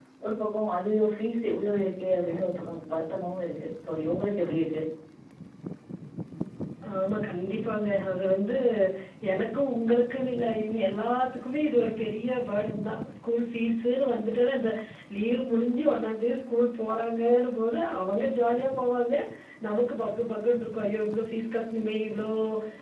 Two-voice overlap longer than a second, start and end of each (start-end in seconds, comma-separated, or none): none